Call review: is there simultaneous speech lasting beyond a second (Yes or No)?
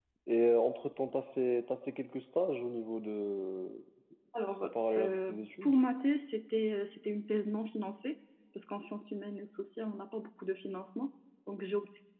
Yes